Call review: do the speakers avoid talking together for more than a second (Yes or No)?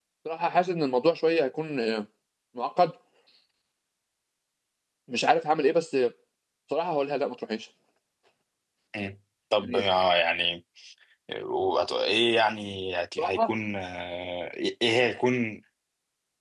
Yes